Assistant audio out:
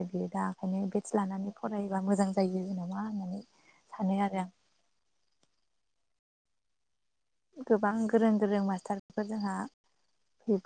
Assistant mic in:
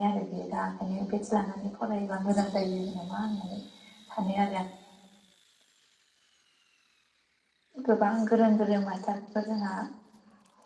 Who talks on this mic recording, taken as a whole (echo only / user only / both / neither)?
echo only